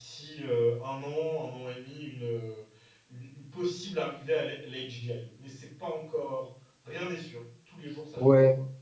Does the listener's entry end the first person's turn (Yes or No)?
Yes